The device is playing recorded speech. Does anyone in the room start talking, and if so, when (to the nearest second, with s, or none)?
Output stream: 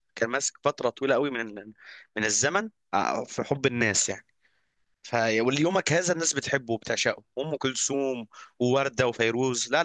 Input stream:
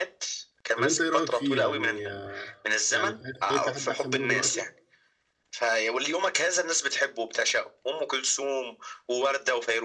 1 s